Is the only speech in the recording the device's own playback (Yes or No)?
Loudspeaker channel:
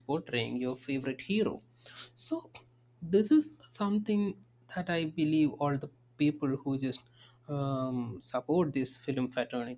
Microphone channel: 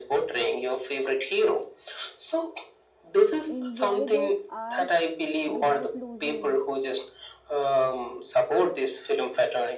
No